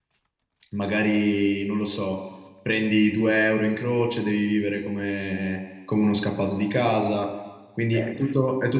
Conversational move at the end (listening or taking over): listening